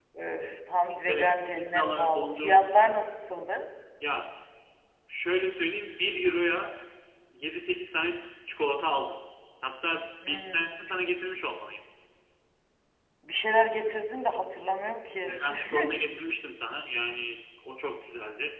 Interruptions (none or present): present